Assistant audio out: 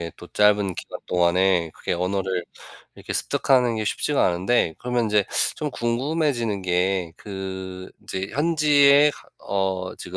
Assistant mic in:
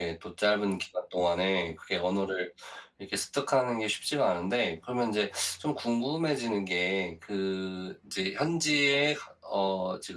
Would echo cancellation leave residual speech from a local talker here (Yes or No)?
No